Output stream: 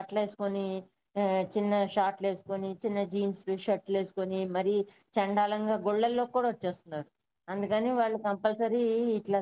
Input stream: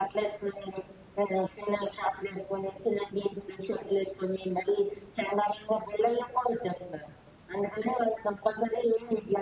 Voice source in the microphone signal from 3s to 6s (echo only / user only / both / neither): echo only